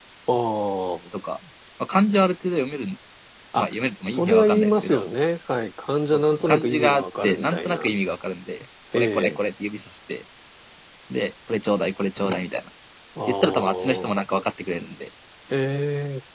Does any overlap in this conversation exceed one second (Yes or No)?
Yes